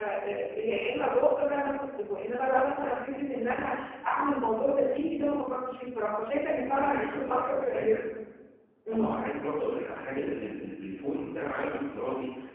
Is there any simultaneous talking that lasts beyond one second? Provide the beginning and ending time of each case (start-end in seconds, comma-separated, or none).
6.6-8.0